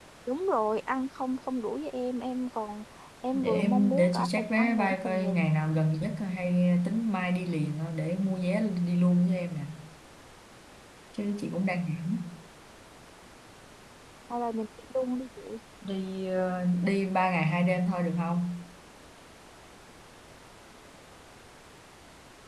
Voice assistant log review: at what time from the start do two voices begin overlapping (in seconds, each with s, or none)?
3.3 s